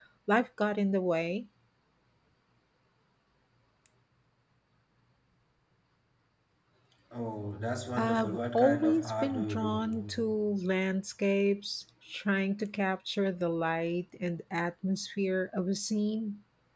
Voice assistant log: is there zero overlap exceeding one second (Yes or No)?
No